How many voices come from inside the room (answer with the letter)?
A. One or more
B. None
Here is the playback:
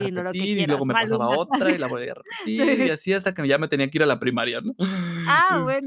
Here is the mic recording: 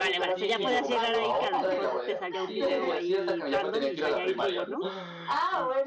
A